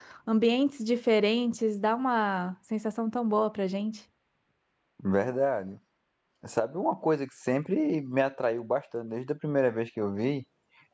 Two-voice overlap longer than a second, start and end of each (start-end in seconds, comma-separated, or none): none